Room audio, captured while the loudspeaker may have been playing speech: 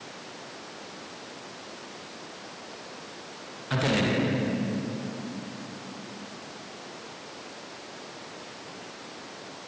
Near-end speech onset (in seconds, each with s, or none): 3.7 s